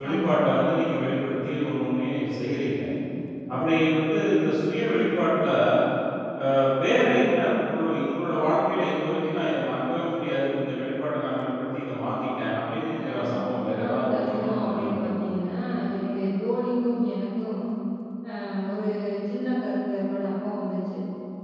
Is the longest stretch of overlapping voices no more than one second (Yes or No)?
No